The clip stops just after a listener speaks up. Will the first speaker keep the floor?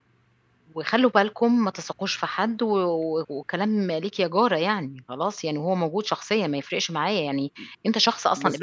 No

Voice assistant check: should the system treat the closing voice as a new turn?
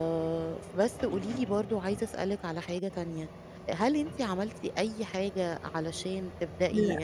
No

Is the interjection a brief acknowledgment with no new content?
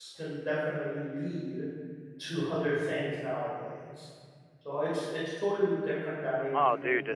No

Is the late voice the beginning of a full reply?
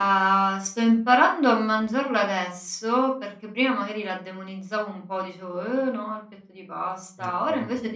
No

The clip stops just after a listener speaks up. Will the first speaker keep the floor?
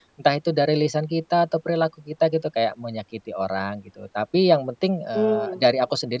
Yes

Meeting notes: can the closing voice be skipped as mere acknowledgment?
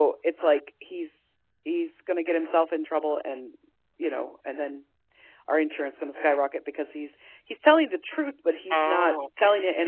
Yes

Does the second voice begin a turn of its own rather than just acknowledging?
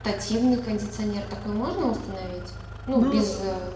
No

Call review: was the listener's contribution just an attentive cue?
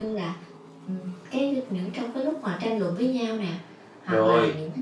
Yes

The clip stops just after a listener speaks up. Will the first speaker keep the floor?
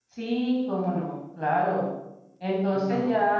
Yes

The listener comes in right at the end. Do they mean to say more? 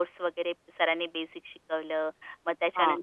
No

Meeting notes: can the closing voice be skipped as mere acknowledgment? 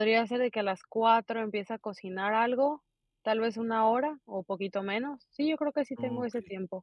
No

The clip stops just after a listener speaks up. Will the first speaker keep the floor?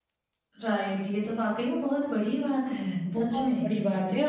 No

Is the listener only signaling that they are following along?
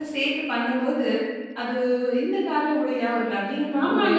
No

